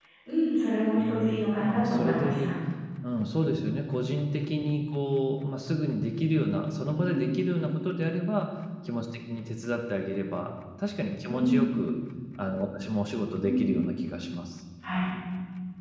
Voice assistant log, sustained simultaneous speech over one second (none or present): present